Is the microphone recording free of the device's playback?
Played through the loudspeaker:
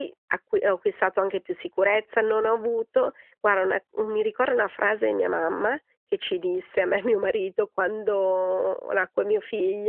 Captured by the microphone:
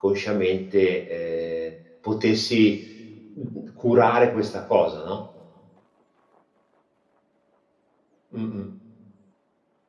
Yes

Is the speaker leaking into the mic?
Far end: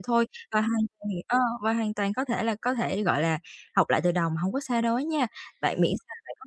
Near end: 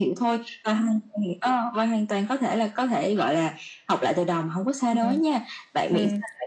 Yes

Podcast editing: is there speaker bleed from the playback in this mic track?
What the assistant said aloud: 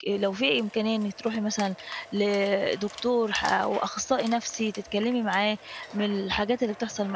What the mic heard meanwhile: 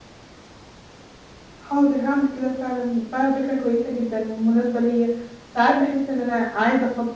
No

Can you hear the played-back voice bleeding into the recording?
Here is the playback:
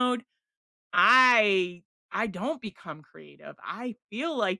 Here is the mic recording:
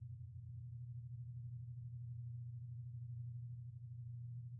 No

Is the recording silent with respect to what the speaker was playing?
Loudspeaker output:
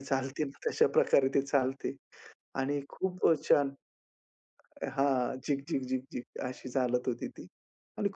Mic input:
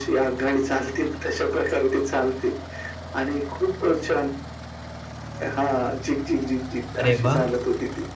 No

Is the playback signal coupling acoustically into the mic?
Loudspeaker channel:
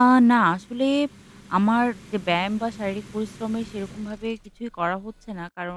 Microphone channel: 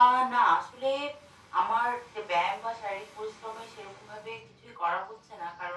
Yes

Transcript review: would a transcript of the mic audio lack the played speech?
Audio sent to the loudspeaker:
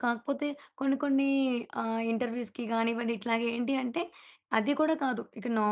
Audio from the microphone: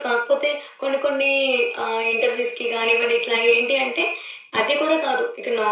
No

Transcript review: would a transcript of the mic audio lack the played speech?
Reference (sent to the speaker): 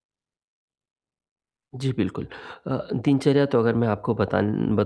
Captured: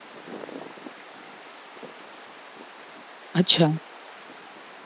Yes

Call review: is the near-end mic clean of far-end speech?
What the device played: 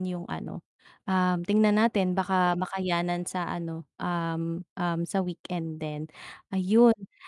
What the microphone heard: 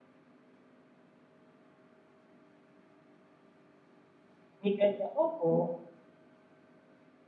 Yes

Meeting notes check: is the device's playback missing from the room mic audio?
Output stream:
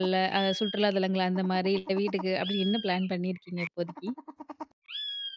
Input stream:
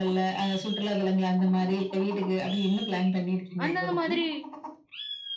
No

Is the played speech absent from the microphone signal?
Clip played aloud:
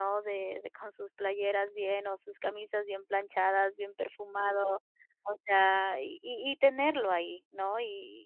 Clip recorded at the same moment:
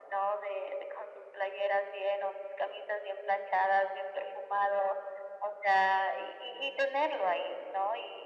No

